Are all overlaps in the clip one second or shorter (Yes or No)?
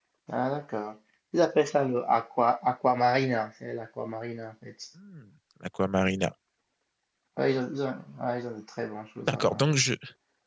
Yes